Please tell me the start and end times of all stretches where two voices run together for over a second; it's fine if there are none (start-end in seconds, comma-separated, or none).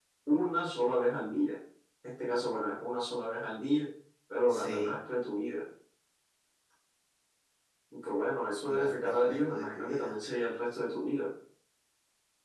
8.6-10.2